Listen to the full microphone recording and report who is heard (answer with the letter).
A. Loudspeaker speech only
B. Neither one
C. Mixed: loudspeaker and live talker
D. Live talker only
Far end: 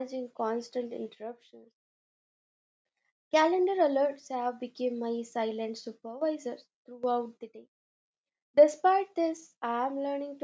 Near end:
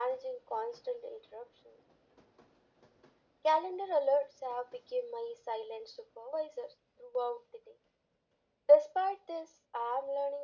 A